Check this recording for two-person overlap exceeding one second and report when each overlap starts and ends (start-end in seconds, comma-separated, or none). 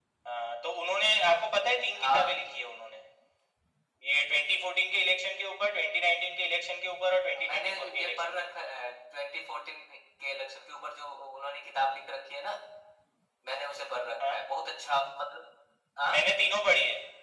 7.4-8.7